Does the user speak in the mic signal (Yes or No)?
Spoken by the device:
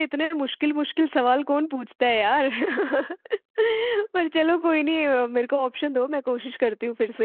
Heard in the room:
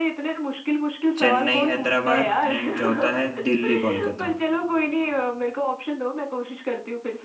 Yes